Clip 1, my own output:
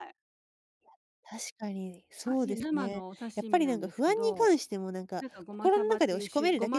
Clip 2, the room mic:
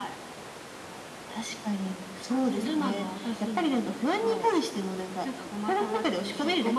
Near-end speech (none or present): none